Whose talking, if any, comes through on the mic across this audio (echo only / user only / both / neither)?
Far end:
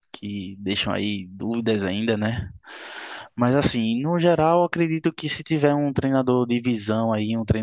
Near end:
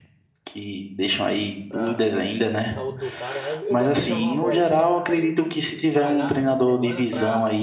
both